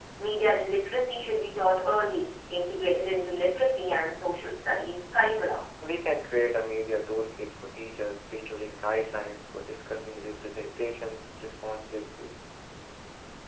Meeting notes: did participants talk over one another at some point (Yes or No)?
No